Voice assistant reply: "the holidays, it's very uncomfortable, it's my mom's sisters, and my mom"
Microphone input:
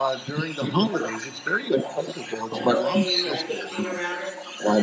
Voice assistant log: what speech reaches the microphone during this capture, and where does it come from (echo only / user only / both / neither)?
both